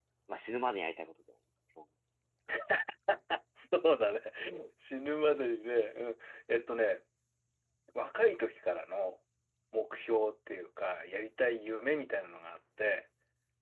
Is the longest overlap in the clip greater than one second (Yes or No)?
No